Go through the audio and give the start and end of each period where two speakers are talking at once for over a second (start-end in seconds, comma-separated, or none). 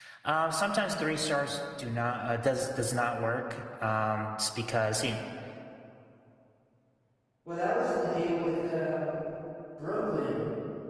none